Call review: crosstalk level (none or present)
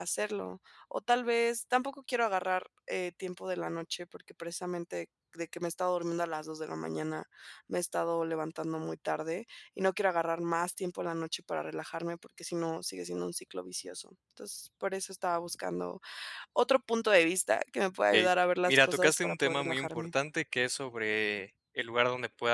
present